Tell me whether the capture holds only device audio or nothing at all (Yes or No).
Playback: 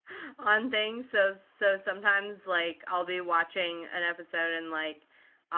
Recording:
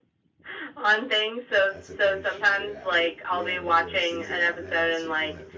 No